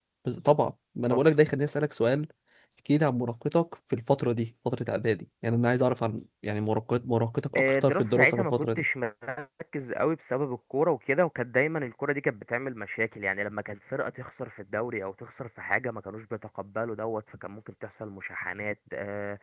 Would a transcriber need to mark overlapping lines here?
Yes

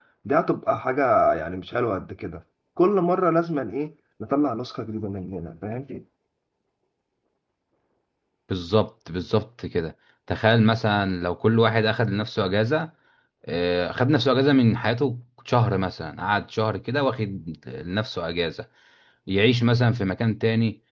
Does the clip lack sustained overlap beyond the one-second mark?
Yes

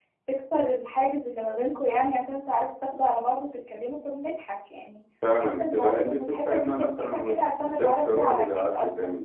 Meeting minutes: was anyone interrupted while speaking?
Yes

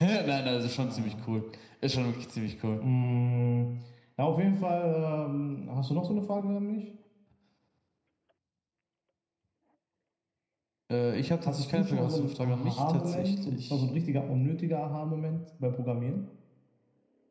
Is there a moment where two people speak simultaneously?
Yes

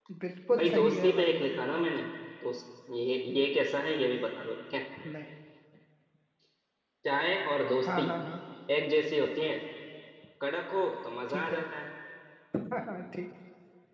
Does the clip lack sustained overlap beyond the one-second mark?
No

